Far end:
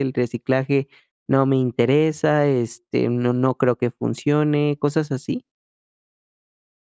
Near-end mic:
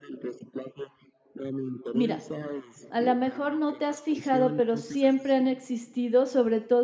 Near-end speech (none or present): present